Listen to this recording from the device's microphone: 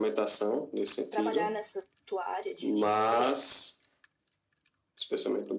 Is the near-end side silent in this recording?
No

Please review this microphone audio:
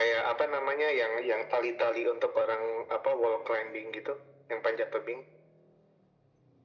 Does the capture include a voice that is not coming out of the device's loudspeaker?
No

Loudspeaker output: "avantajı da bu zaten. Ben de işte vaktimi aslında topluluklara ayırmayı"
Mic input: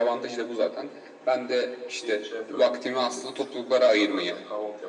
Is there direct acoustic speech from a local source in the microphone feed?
Yes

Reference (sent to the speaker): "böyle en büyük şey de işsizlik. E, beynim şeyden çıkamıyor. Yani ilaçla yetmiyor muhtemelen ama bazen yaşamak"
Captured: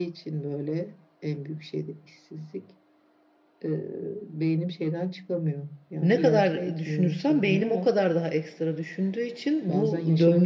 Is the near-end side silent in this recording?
No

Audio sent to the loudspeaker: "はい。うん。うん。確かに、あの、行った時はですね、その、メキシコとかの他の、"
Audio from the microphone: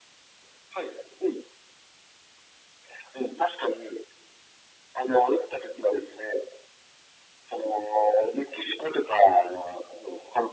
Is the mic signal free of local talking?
Yes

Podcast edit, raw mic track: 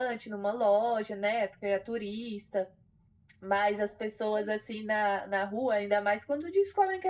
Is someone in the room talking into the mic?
No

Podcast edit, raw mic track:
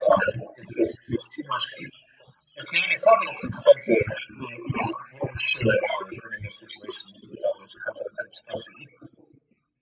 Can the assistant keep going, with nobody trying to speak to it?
Yes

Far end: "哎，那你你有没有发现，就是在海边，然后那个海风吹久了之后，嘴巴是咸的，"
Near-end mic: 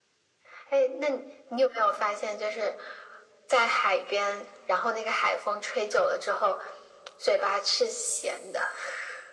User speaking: No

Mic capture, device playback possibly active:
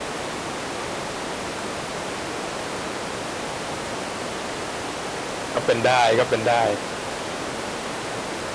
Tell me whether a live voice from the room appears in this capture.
Yes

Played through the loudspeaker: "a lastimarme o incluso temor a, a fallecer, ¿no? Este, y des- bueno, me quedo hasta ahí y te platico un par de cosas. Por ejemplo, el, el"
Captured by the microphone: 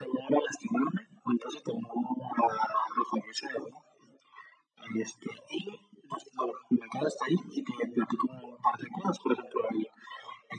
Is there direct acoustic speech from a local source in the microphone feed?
No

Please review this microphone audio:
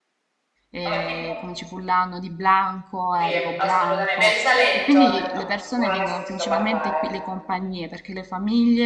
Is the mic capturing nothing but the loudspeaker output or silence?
No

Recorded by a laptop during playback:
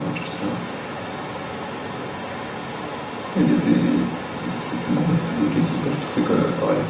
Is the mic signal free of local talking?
Yes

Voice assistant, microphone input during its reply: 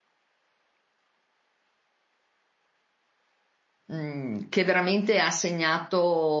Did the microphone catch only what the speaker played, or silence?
No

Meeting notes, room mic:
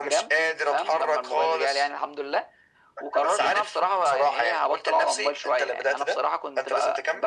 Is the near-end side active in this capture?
No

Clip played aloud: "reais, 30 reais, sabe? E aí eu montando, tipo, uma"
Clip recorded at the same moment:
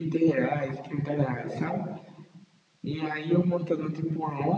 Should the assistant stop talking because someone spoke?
No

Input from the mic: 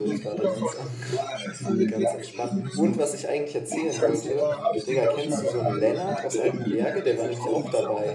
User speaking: Yes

